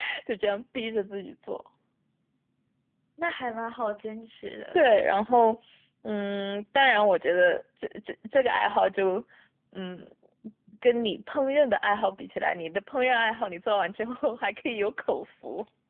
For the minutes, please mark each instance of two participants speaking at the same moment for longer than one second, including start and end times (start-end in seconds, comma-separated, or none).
none